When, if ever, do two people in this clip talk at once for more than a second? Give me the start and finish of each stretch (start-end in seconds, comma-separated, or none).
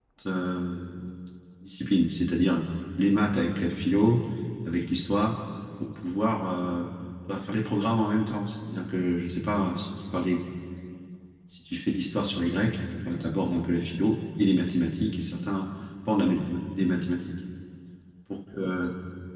none